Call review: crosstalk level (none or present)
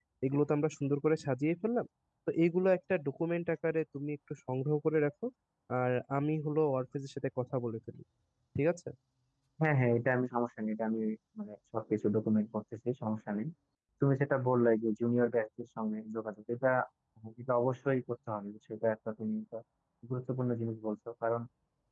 none